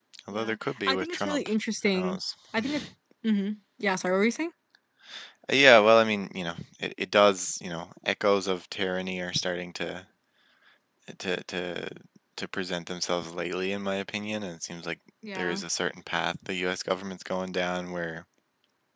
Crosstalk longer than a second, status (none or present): present